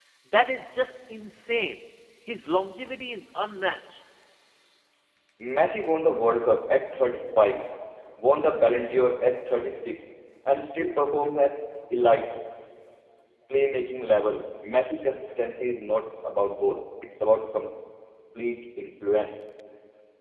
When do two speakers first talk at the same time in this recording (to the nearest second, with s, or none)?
none